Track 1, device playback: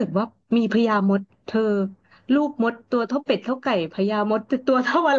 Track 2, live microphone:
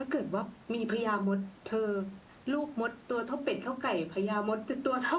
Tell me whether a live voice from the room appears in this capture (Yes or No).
No